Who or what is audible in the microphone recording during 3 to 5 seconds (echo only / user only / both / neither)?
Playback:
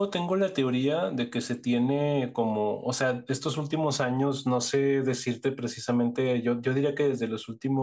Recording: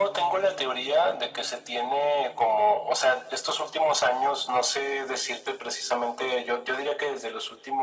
echo only